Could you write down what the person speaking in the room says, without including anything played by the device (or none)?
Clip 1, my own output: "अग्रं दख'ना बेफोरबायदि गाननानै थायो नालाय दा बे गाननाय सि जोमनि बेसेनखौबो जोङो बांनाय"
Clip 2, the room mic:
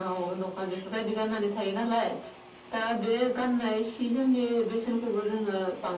none